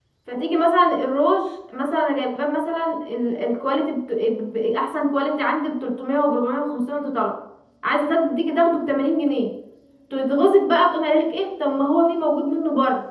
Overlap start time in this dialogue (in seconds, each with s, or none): none